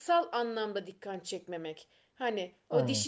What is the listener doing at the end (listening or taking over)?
listening